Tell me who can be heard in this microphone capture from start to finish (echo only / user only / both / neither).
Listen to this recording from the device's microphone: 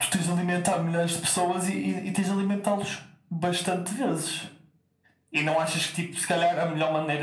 echo only